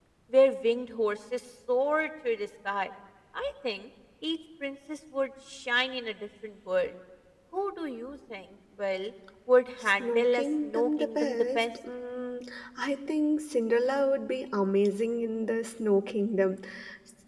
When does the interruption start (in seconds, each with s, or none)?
9.8 s